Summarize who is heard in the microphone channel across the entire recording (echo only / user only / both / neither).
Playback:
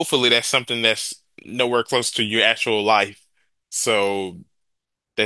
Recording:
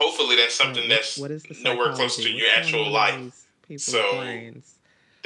both